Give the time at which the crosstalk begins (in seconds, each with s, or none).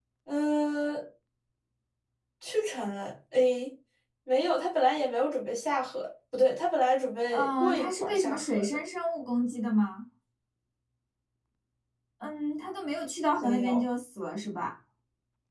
7.3 s